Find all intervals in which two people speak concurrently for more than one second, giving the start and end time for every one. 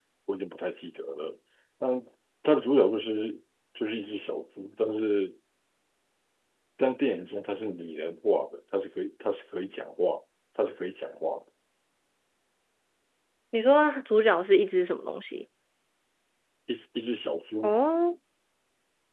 none

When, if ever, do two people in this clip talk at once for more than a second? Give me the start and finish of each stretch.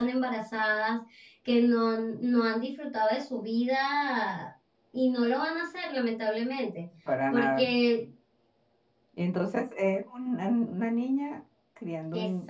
none

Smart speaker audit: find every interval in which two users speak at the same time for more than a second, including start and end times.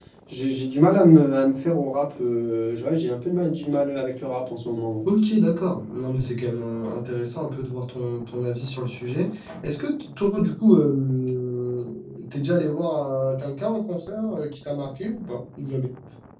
none

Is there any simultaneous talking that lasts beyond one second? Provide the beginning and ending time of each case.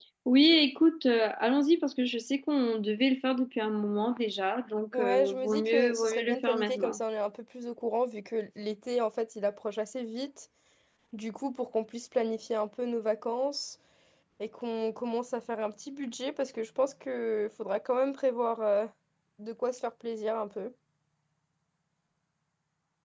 4.9-7.0

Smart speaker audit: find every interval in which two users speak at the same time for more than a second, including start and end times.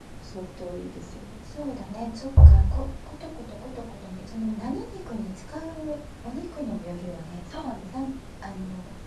none

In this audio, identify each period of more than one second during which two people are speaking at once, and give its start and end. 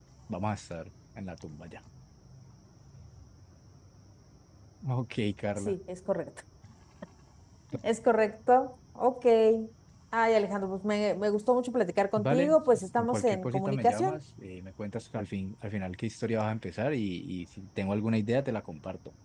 12.2-14.2

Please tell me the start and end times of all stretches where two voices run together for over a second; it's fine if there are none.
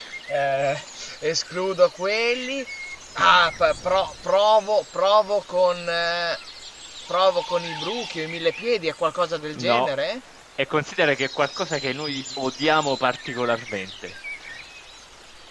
none

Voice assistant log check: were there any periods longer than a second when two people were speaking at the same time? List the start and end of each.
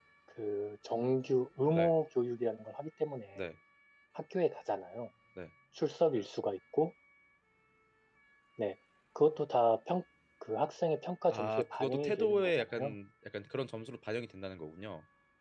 11.3-12.9

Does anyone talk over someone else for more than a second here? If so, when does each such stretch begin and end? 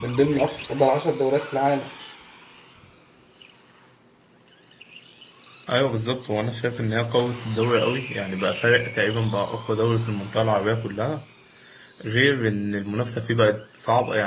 none

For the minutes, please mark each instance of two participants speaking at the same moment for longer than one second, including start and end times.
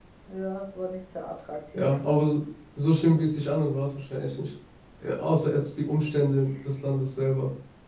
none

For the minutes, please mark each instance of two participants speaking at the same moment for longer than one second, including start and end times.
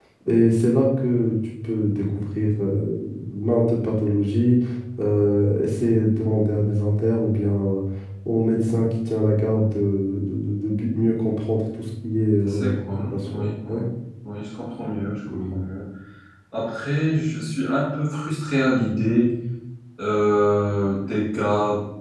12.5-13.8

